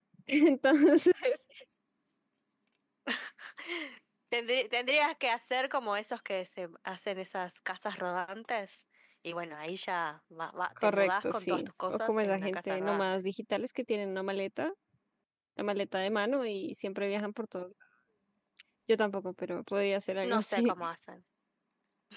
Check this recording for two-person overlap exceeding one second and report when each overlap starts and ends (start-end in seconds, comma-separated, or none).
10.8-13.0